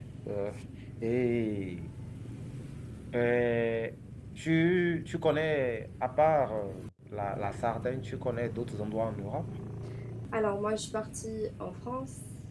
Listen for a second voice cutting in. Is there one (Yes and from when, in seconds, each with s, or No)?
No